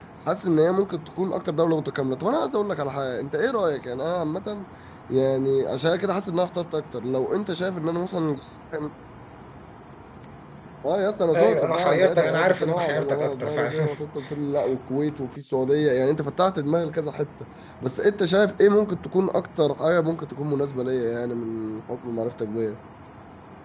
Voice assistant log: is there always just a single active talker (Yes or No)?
No